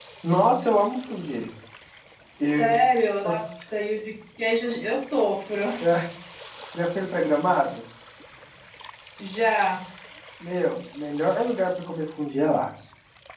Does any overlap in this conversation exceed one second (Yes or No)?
No